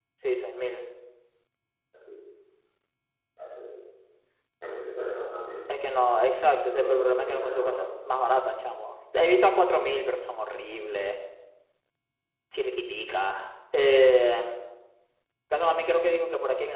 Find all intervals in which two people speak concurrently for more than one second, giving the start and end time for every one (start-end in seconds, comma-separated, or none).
6.7-7.9